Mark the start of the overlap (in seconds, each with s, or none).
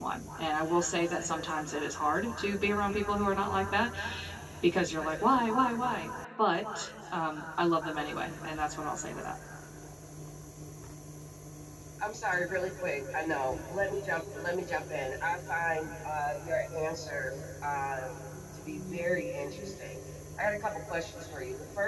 none